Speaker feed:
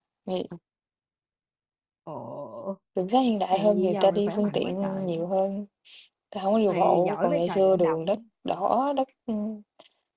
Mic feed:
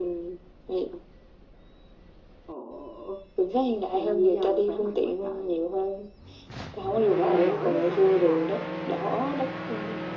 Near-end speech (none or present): none